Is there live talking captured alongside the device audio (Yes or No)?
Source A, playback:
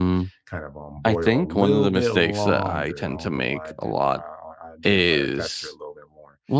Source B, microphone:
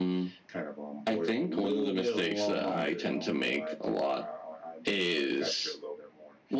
No